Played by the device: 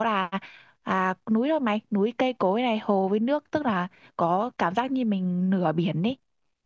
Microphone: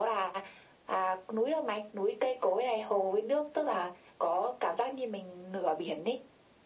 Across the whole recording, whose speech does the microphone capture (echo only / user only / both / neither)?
echo only